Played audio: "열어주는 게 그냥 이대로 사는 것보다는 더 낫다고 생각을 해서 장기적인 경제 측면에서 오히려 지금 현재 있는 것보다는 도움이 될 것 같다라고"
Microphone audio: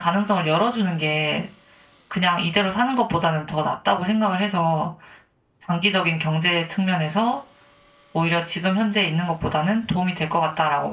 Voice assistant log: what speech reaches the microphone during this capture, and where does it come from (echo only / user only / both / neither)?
echo only